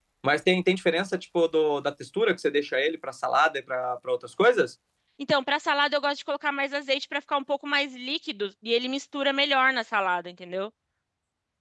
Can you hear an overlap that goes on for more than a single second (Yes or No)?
No